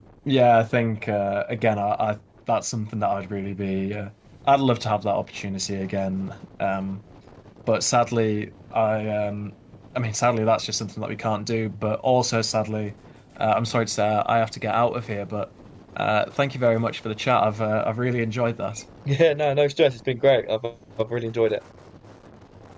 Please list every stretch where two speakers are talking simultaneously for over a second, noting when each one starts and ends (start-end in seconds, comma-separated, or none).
none